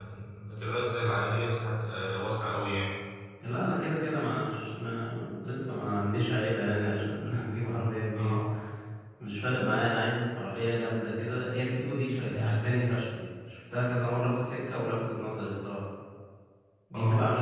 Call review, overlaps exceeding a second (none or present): none